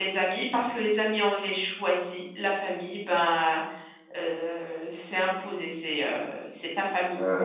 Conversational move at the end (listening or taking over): taking over